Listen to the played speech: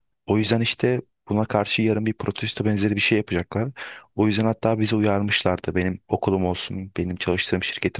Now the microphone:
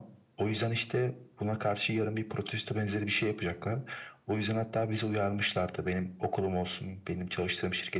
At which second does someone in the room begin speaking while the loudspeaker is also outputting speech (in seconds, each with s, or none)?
none